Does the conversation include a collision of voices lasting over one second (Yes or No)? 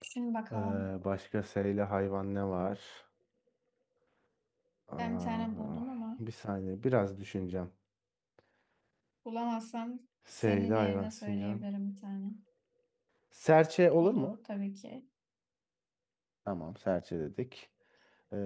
Yes